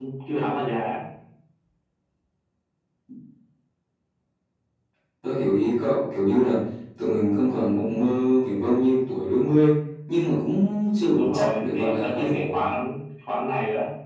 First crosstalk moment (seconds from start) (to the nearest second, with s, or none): 11 s